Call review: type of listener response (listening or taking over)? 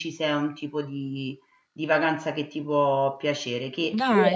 taking over